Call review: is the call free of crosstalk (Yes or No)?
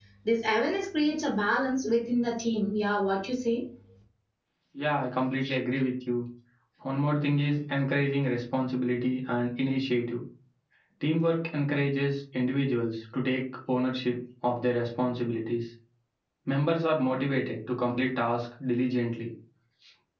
Yes